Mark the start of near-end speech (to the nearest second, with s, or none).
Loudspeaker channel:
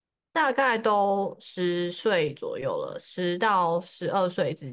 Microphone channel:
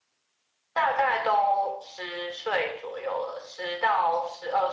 none